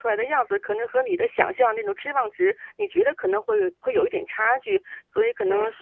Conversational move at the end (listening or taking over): listening